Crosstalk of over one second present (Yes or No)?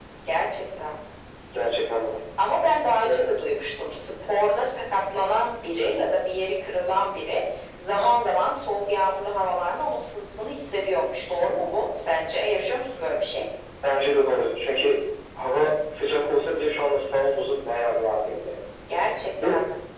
No